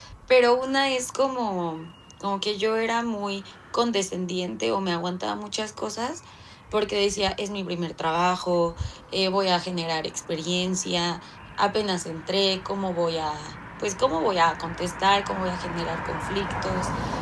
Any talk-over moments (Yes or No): No